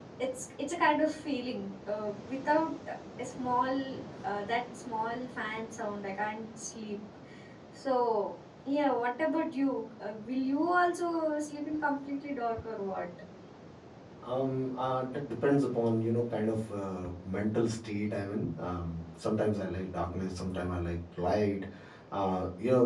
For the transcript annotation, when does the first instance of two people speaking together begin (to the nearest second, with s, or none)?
none